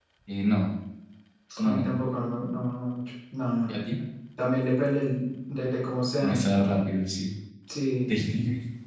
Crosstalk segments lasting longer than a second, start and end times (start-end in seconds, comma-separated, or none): none